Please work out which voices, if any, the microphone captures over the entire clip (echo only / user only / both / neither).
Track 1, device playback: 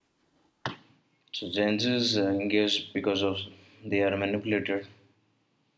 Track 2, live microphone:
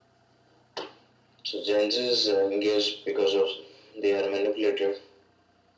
echo only